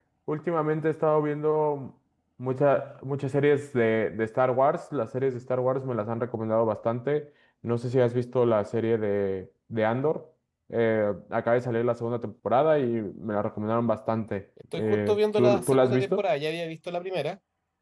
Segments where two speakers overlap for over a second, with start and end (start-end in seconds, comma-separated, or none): 14.7-16.2